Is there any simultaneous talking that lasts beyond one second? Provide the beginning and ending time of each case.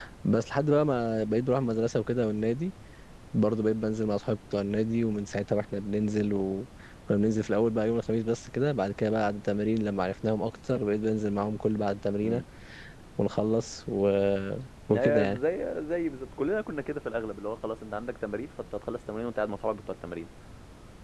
none

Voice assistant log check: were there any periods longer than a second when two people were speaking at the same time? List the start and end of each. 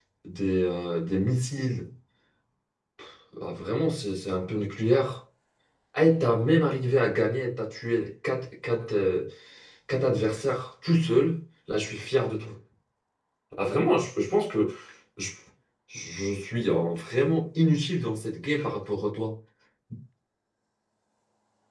none

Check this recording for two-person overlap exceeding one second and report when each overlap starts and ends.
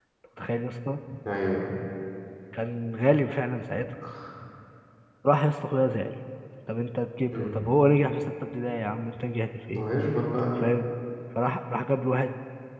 none

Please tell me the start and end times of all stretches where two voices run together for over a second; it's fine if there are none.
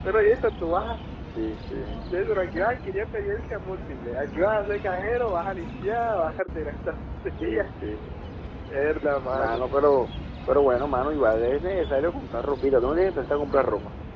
none

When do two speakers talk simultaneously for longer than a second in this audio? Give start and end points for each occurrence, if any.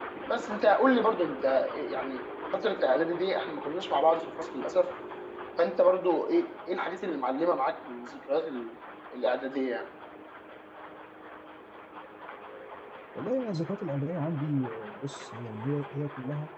none

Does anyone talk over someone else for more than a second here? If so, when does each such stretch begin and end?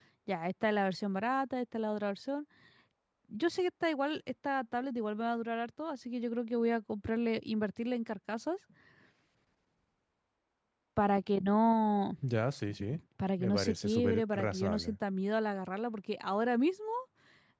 13.4-15.0

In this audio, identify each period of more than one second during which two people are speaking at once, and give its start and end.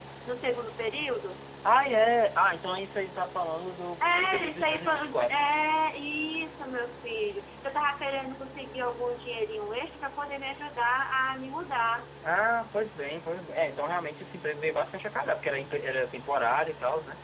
4.0-5.6

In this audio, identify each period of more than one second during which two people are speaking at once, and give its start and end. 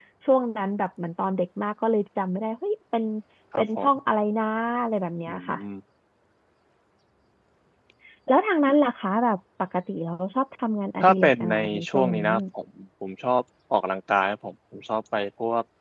11.0-12.2

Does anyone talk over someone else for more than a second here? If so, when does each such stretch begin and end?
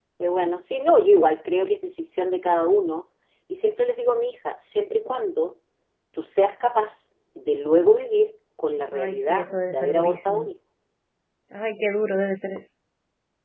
8.9-10.5

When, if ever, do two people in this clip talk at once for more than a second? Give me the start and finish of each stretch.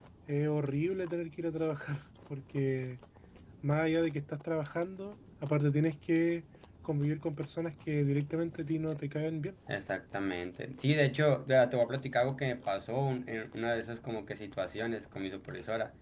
none

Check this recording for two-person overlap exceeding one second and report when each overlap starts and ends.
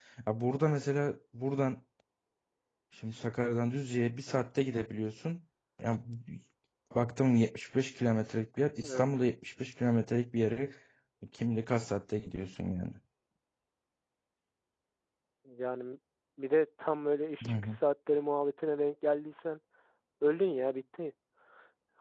none

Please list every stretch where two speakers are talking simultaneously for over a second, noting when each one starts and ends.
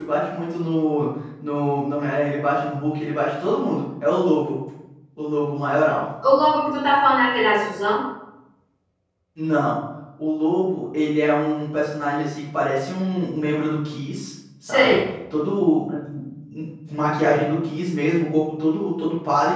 none

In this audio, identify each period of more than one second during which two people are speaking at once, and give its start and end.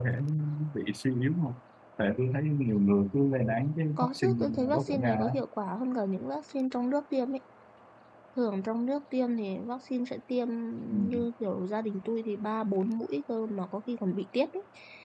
4.0-5.3

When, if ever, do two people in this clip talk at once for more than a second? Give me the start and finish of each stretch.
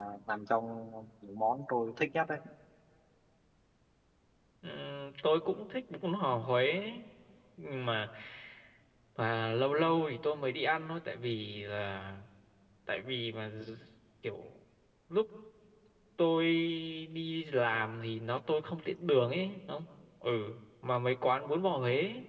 none

